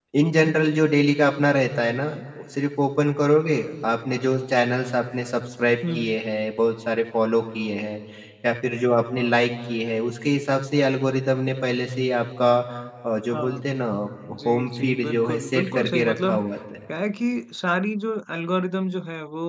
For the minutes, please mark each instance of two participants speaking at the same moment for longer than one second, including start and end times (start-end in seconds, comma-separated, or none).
14.5-16.4